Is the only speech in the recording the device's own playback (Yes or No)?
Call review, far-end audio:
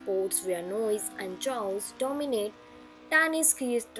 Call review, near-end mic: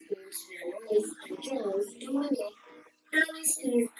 Yes